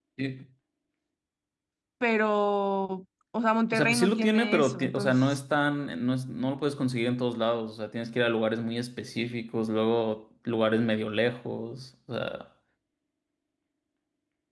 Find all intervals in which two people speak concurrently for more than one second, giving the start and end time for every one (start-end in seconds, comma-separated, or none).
3.7-5.4